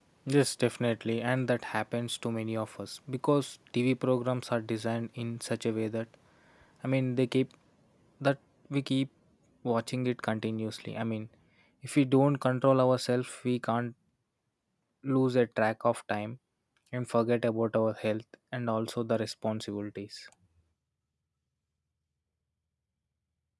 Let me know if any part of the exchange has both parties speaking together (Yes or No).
No